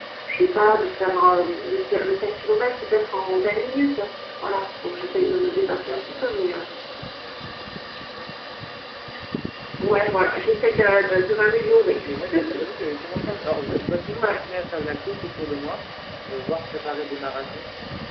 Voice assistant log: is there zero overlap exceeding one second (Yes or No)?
No